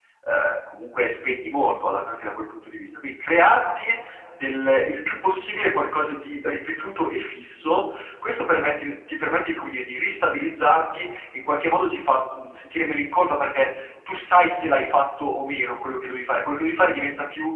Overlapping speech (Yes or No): No